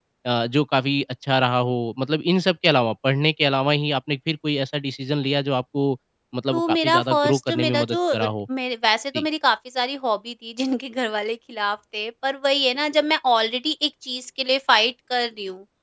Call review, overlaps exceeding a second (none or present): present